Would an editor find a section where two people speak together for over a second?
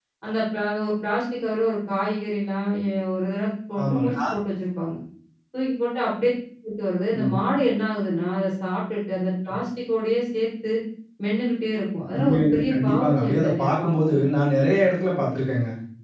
Yes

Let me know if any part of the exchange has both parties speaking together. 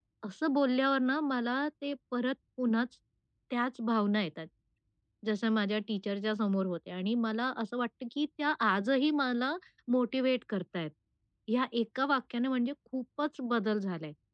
No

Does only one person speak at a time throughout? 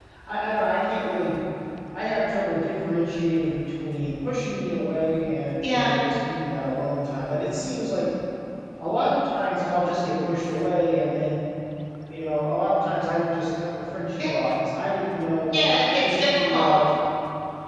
No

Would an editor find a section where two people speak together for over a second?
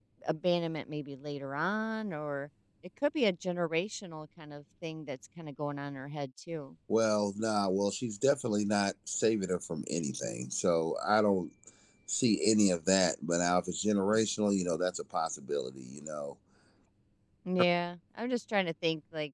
No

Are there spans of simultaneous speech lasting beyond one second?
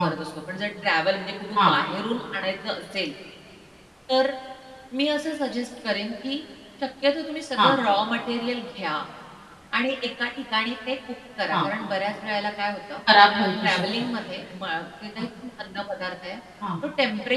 No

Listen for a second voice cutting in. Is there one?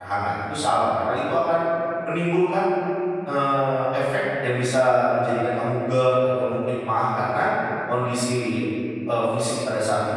No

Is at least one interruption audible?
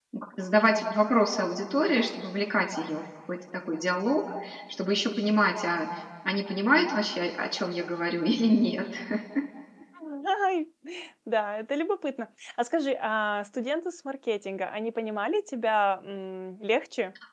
No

